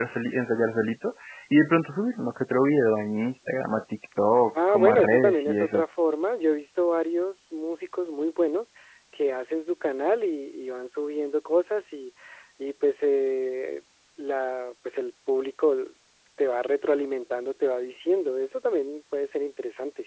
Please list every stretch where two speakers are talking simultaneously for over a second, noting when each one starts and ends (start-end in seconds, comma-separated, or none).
4.5-5.8